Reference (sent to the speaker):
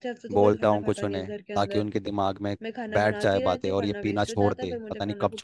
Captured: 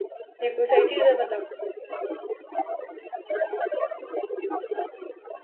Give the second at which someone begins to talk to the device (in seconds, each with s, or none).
0.4 s